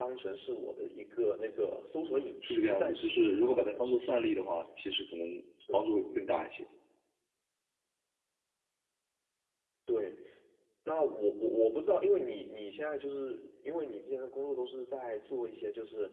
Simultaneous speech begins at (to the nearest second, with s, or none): 2 s